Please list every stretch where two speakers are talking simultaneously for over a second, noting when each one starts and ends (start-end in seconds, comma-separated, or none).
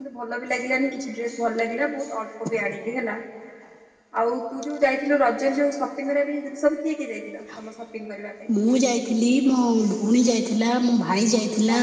none